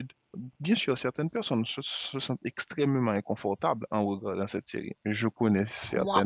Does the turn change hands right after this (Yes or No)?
Yes